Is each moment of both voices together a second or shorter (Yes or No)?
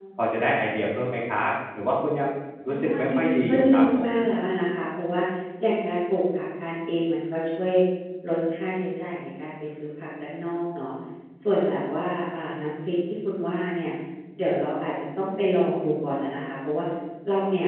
No